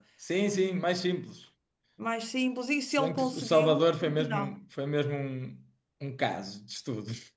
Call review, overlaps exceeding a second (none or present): present